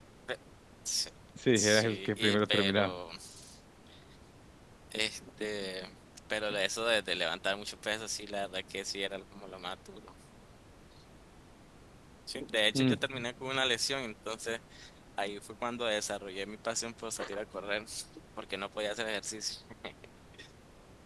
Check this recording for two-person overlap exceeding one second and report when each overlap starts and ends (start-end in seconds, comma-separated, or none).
1.6-2.9